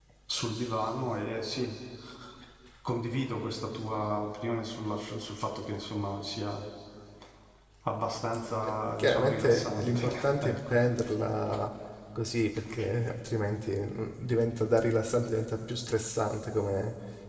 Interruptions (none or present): present